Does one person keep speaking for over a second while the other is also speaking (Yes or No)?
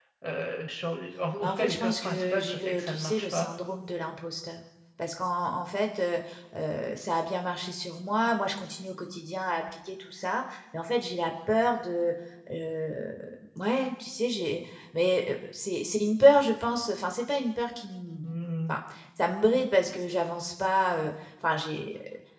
Yes